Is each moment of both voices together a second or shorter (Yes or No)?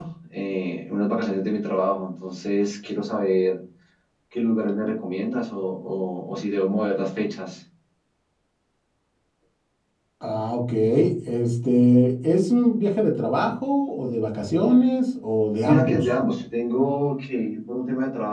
Yes